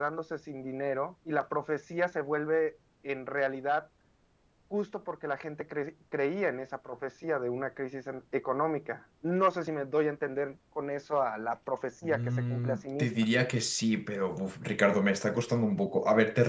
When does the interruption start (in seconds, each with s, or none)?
12.0 s